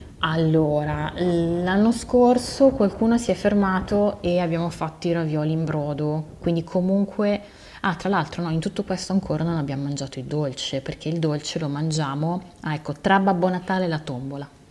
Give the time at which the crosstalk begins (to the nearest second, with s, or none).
none